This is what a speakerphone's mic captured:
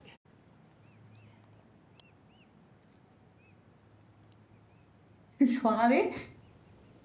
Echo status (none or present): none